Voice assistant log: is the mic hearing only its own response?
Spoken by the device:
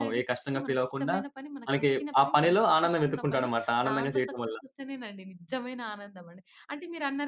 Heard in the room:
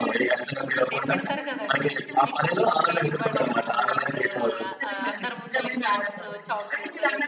No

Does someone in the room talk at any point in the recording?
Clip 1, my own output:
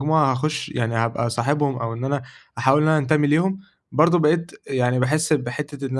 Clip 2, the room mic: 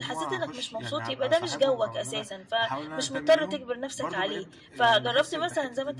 Yes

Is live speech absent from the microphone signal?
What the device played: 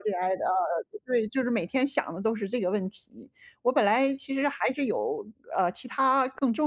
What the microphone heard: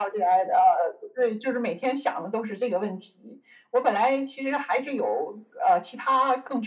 Yes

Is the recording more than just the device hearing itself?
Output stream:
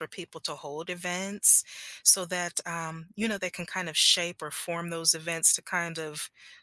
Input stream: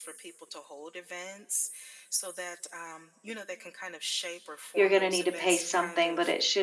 Yes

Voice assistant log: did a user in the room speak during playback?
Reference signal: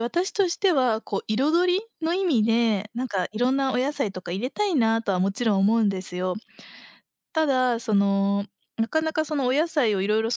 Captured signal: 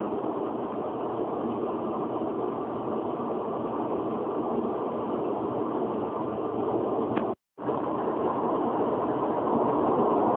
No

